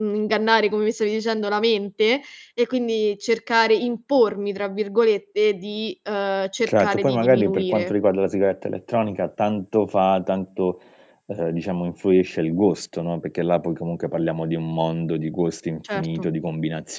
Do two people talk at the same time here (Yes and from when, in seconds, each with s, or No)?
Yes, from 6.7 s